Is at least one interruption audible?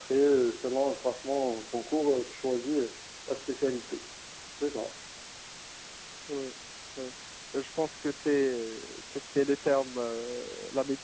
No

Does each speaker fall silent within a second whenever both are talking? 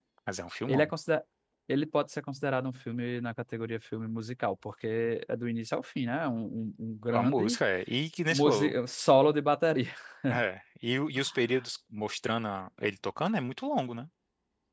Yes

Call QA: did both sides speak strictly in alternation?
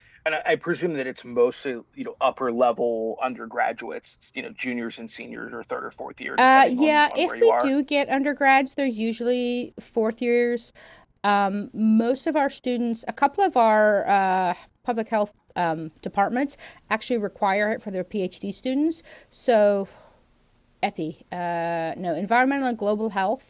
No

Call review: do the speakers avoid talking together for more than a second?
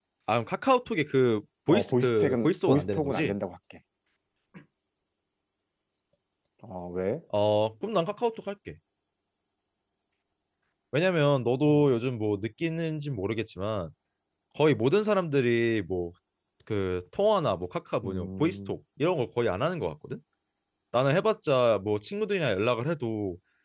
No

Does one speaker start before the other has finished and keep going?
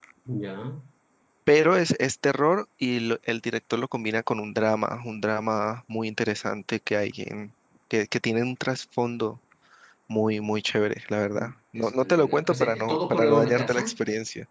Yes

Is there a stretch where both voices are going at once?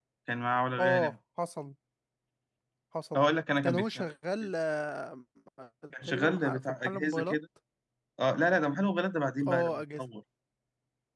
Yes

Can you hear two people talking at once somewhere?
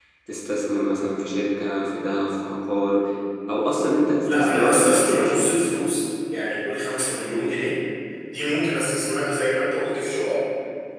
Yes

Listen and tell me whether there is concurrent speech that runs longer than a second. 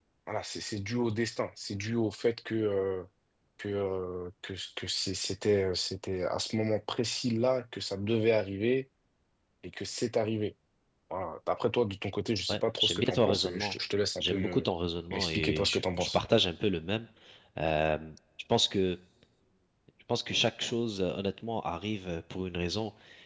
Yes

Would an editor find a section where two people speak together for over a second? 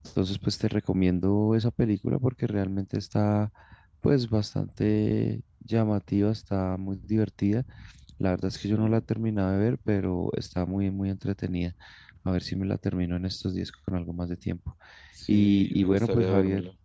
Yes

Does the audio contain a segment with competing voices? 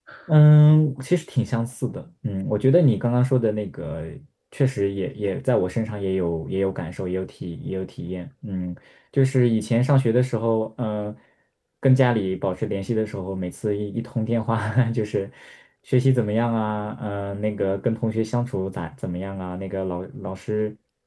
No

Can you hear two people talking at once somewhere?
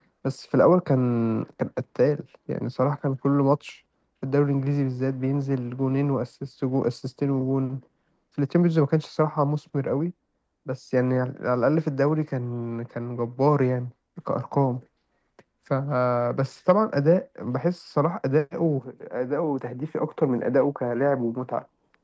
No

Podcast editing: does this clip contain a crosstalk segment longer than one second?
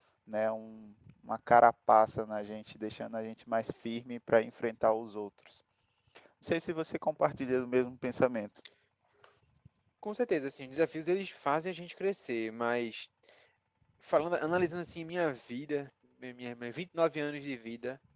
No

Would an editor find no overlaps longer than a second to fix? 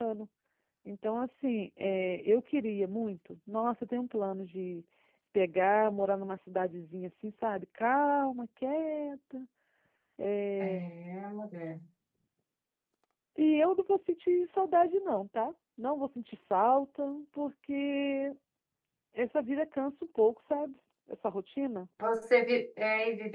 Yes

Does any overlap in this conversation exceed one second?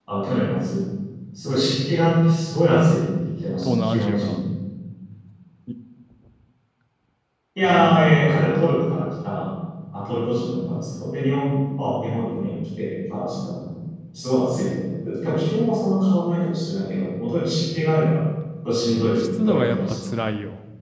Yes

